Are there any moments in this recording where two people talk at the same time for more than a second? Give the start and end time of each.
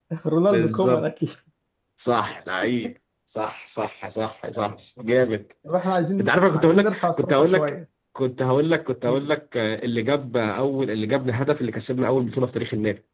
6.2-7.7

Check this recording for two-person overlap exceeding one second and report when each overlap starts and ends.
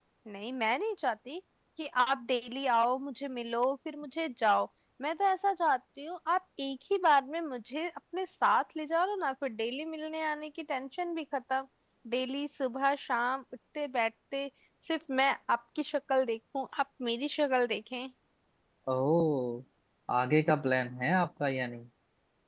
none

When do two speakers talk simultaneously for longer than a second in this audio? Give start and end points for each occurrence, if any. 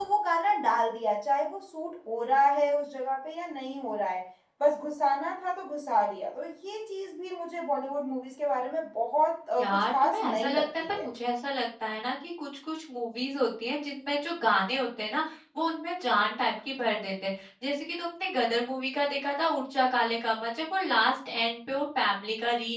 9.6-11.1

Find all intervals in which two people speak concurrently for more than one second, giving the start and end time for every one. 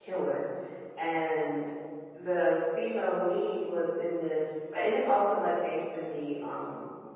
none

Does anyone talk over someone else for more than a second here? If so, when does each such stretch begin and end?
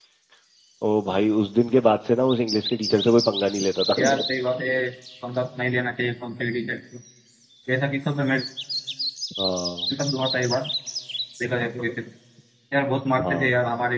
none

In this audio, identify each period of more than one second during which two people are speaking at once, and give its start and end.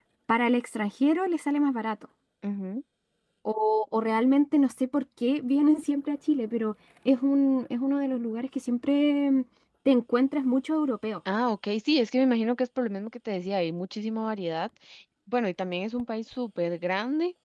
none

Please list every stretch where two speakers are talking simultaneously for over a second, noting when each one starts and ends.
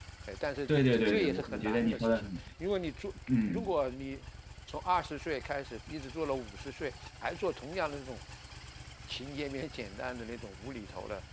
0.7-2.3

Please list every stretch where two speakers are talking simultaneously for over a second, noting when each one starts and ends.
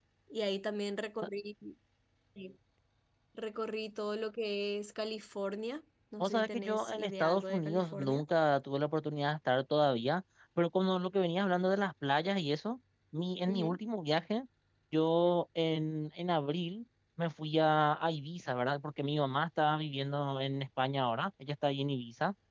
6.2-8.2

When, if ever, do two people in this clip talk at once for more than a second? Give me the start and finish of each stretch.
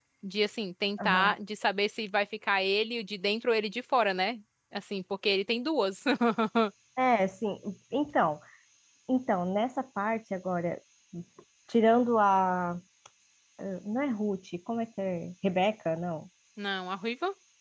none

